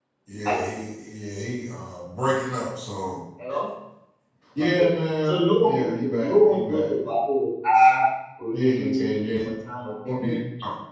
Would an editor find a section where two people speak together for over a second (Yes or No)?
Yes